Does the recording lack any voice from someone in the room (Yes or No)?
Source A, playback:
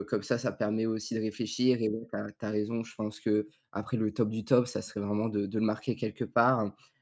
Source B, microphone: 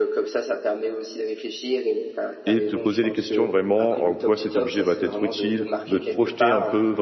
No